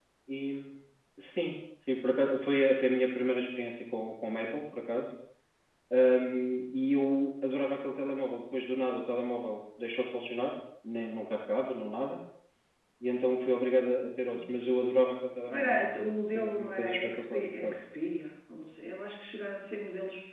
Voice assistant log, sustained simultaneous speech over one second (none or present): present